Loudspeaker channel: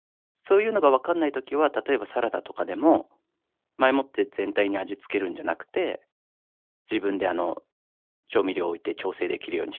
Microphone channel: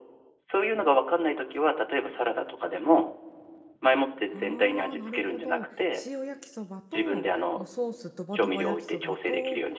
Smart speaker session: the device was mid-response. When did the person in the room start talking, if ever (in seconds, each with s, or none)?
4.2 s